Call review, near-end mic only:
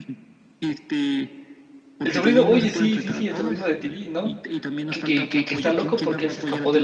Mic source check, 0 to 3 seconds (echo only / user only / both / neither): both